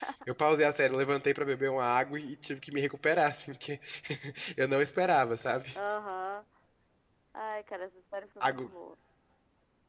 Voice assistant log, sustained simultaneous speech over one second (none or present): none